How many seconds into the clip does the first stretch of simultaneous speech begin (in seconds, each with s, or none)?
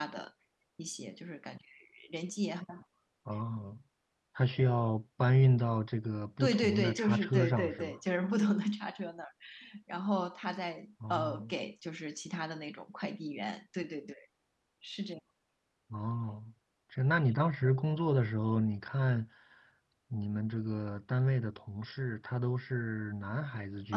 6.4 s